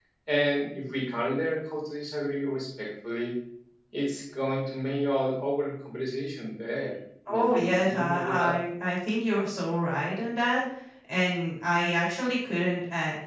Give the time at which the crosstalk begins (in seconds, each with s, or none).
7.3 s